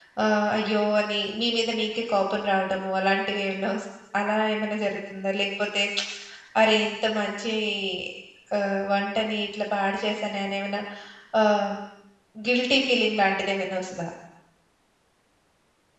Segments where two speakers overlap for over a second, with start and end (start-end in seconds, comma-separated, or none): none